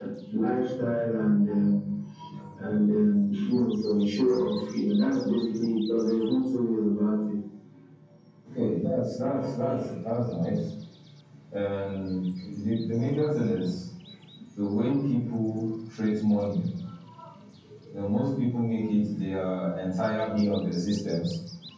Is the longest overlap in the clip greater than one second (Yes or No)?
No